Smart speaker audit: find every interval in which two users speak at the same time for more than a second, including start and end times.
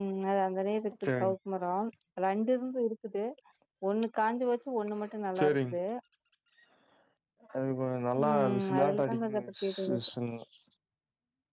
8.2-10.0

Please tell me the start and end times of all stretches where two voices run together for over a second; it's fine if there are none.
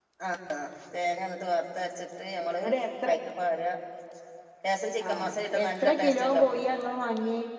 5.1-6.5

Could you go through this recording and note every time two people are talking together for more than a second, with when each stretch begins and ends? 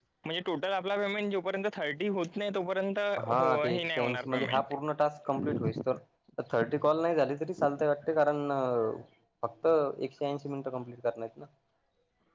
3.4-4.6

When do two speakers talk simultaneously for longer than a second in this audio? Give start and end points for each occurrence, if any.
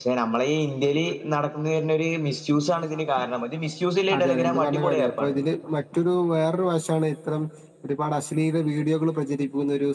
4.2-5.4

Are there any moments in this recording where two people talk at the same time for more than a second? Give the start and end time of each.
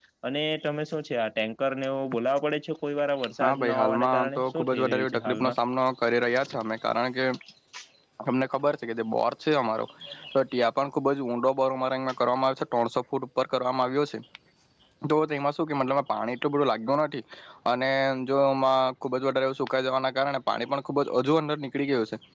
3.4-5.5

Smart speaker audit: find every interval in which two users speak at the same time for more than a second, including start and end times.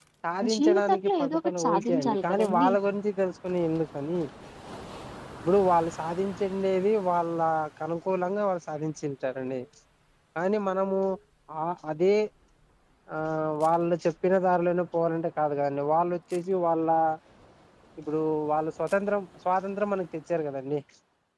0.6-2.7

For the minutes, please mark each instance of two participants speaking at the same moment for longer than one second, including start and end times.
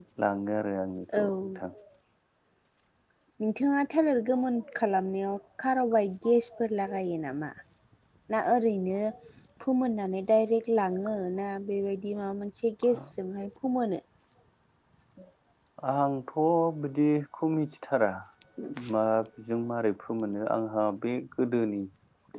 none

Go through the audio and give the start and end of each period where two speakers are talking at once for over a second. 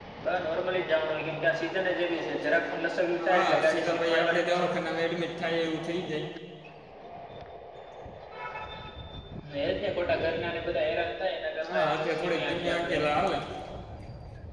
3.3-4.7, 11.6-13.0

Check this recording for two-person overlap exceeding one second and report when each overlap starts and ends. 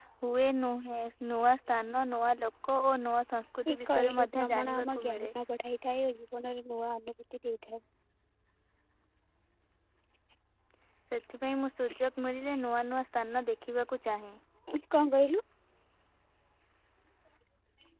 3.7-5.3

